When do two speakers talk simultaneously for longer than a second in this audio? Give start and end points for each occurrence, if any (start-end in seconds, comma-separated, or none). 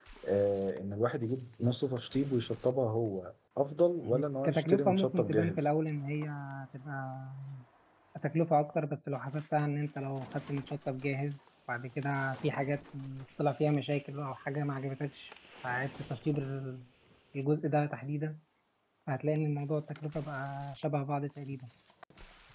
4.0-5.7